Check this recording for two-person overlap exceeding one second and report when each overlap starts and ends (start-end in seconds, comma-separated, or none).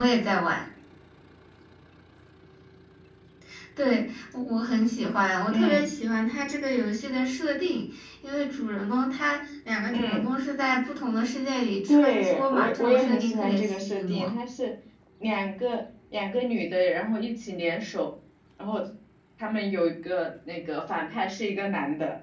11.9-14.3